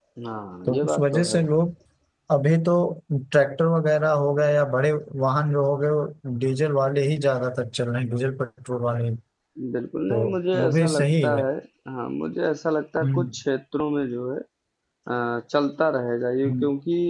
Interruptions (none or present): present